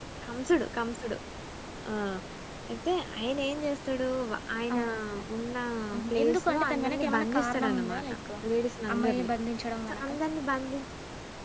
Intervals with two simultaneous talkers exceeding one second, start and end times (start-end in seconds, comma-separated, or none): 6.1-8.1